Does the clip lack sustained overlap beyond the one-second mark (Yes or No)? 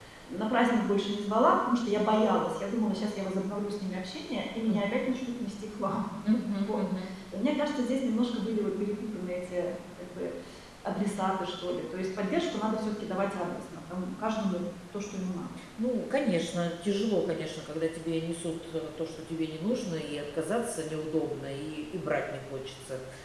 Yes